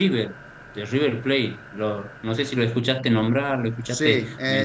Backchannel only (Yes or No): No